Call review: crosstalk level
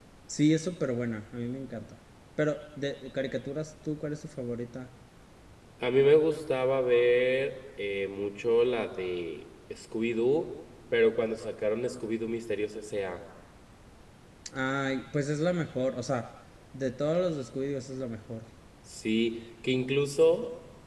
none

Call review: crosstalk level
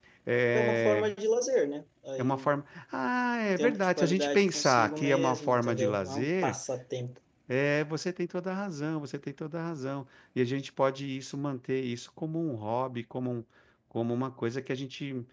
present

